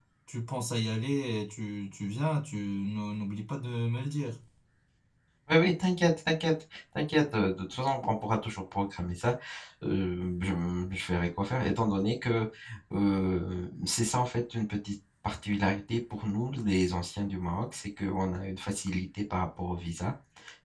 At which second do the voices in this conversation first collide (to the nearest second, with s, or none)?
none